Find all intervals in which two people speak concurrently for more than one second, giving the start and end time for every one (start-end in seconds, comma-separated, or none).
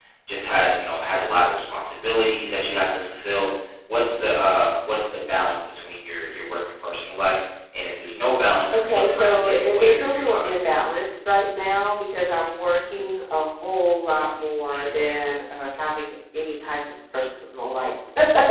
8.7-10.5